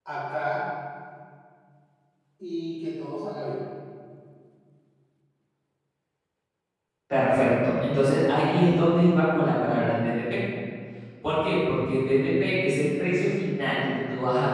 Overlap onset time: none

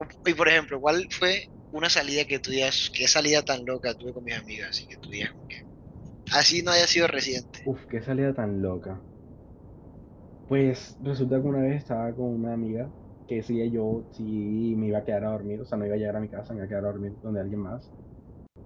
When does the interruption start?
none

